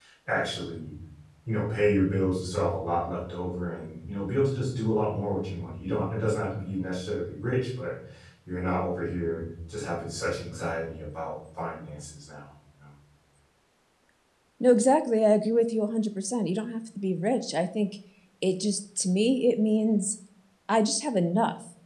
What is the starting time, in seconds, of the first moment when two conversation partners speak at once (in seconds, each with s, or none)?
none